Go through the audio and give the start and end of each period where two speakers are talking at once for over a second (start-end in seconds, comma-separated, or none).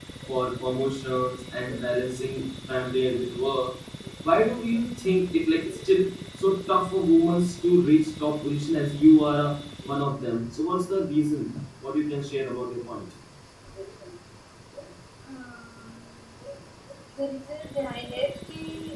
none